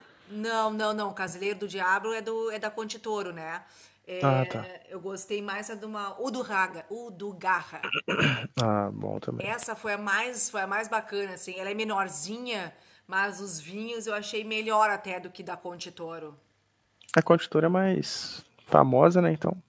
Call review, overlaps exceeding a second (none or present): none